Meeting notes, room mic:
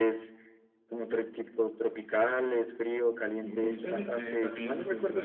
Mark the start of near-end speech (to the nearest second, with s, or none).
3 s